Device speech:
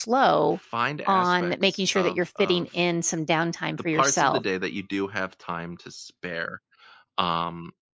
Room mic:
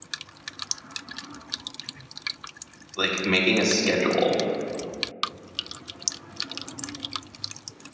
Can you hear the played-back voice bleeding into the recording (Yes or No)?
No